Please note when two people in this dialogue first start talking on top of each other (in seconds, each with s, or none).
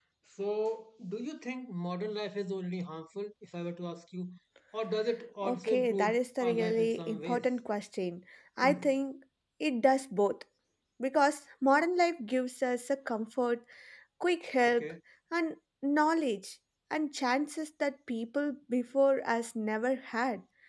5.4 s